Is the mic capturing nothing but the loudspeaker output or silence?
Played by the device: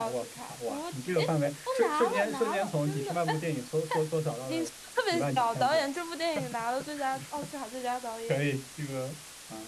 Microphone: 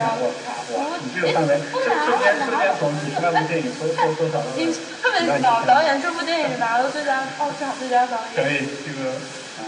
Yes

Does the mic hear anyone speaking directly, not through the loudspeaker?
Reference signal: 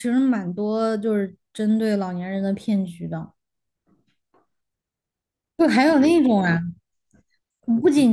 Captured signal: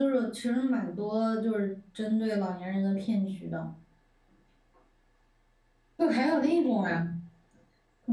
No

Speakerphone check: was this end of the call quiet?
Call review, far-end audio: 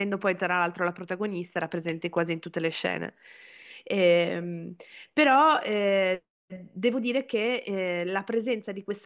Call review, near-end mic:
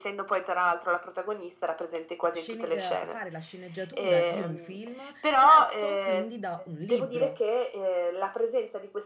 No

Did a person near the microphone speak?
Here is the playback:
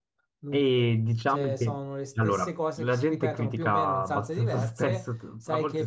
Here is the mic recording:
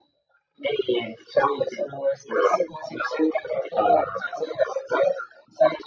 No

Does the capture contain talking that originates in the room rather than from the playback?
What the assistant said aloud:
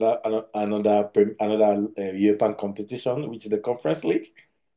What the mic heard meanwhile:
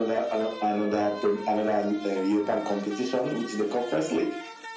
No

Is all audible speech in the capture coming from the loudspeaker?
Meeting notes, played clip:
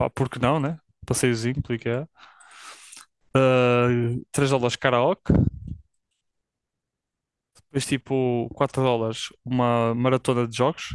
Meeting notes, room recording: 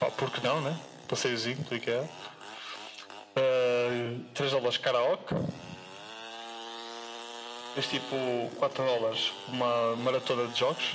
Yes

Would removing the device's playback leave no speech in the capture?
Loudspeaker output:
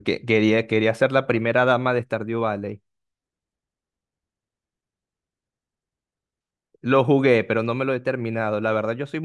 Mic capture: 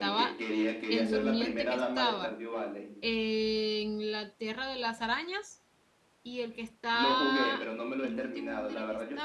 No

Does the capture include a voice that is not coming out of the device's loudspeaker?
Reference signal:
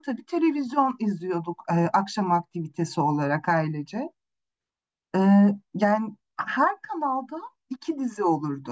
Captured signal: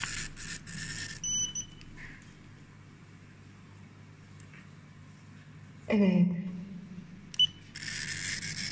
Yes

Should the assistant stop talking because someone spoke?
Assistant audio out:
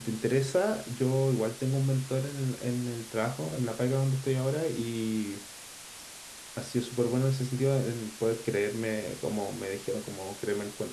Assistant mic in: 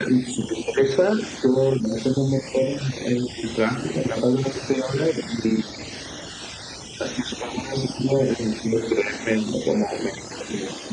No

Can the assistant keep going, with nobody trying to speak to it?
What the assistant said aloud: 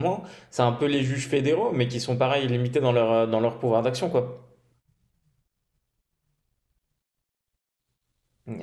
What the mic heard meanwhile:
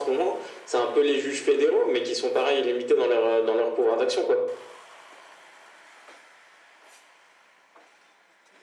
Yes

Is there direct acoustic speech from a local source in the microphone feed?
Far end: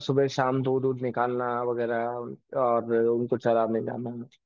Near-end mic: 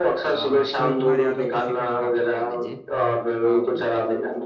Yes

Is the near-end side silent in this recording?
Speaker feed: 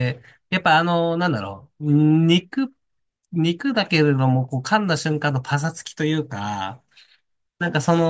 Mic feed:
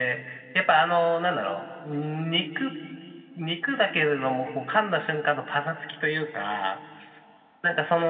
Yes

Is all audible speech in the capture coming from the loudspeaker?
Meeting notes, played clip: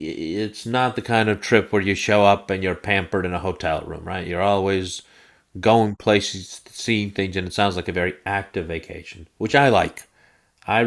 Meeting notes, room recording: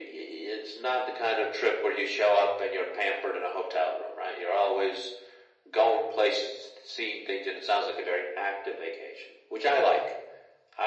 Yes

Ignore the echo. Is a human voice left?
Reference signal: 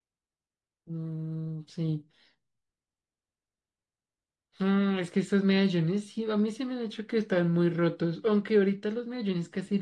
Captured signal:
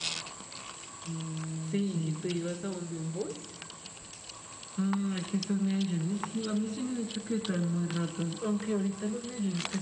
Yes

